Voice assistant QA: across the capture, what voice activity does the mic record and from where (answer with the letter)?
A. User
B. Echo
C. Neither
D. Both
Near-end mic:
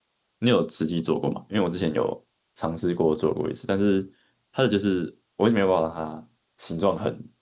A